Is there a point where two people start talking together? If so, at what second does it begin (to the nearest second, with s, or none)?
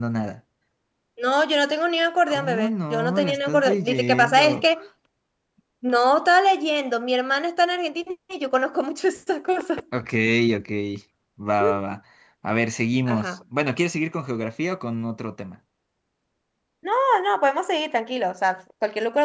2 s